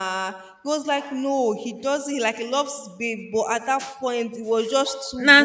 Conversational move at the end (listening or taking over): listening